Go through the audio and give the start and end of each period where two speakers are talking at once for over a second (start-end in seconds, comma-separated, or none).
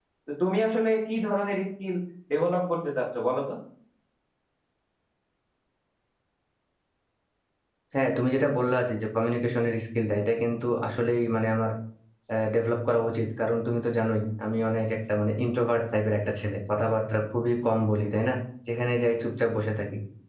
none